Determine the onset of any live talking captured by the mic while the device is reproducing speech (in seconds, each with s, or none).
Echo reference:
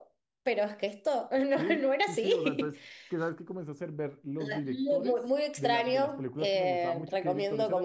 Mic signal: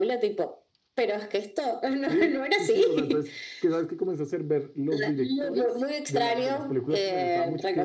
none